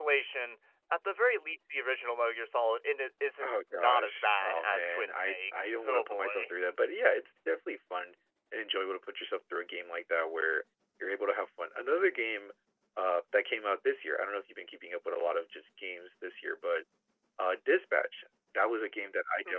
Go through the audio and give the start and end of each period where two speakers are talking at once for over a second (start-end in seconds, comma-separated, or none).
3.4-6.5